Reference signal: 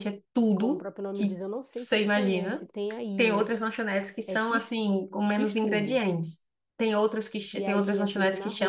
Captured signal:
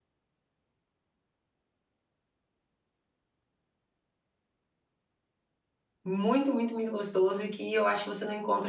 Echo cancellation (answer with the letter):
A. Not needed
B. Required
A